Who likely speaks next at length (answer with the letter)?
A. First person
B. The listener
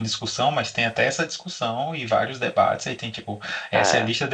A